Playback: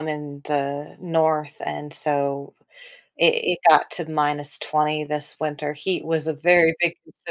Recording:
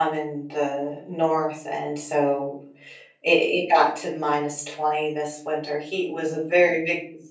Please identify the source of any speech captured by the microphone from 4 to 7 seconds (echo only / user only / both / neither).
echo only